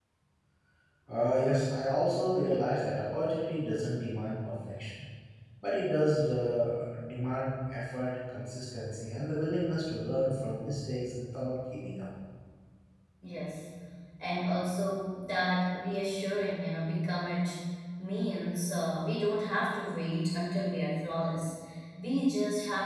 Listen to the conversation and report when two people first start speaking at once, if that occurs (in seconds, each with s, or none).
none